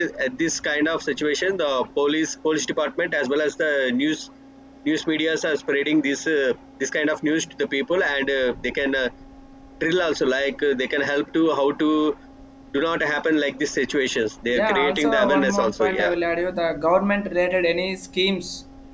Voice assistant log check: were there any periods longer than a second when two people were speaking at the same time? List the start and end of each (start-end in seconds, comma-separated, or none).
14.6-16.1